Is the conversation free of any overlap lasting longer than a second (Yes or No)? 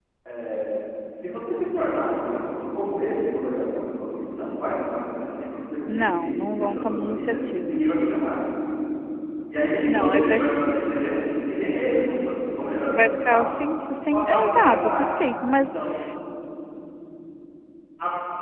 No